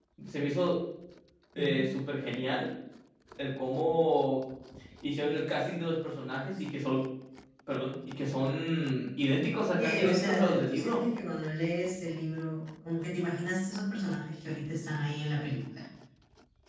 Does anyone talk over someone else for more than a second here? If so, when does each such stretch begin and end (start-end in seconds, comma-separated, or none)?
9.8-11.0